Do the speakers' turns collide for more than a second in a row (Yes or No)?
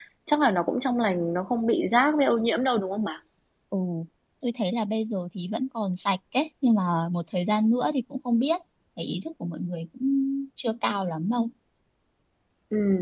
No